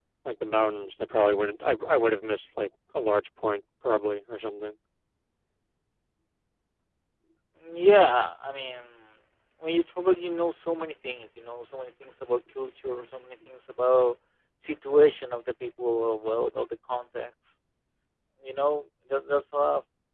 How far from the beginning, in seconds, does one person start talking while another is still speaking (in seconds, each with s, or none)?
none